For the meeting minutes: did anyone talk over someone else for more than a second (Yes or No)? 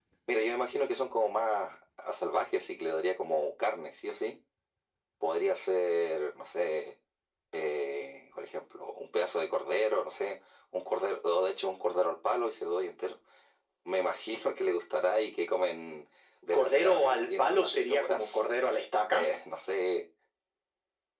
Yes